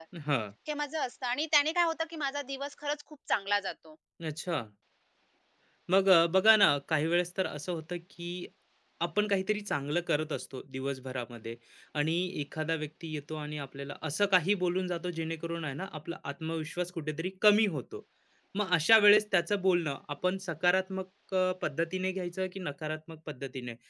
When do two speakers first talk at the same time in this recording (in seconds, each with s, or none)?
none